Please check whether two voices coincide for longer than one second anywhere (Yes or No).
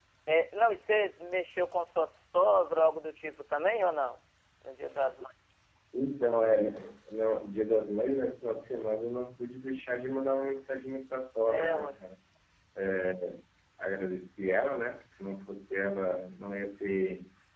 No